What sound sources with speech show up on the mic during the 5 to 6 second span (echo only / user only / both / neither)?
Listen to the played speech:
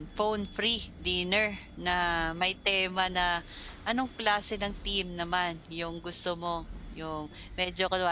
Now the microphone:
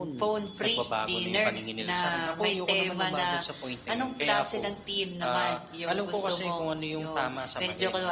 both